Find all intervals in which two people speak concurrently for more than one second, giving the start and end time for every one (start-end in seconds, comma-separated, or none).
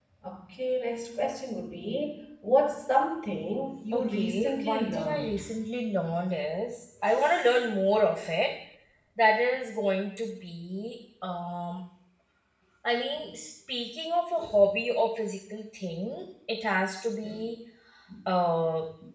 3.9-5.4